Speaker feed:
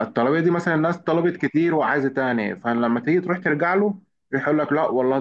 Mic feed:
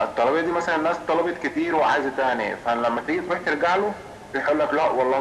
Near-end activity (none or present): none